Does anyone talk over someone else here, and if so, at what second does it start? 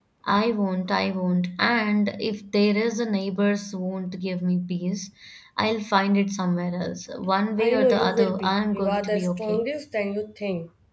7.6 s

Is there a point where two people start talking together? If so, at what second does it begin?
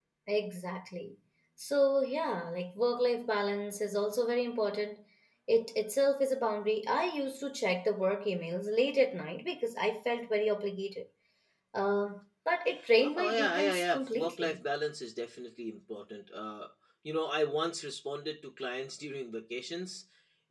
13.0 s

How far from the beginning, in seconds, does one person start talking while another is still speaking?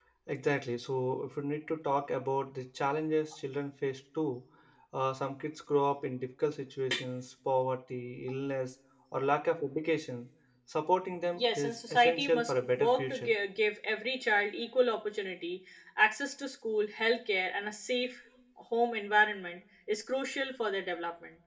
11.3 s

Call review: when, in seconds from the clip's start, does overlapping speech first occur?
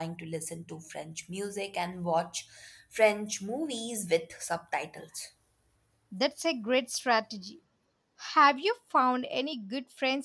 none

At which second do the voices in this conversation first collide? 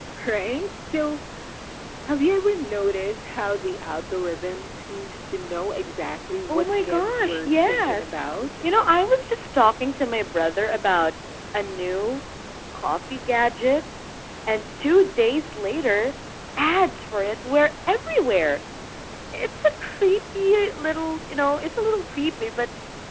6.5 s

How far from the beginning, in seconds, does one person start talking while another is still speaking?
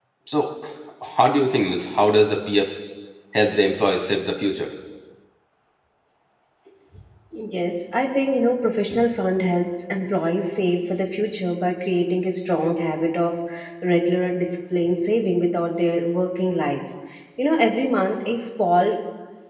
none

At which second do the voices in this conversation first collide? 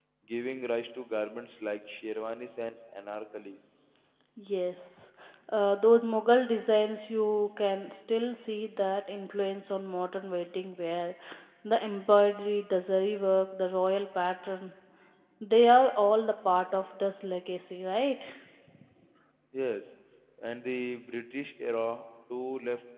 none

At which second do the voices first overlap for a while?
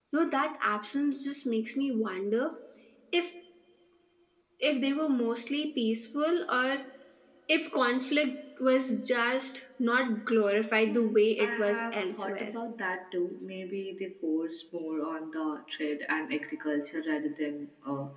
10.9 s

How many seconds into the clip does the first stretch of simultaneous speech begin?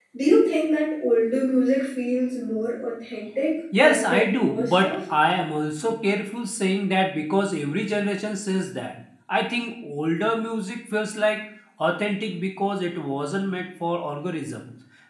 3.7 s

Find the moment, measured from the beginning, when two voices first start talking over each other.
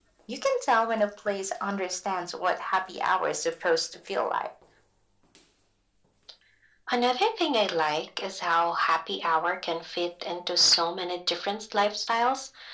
none

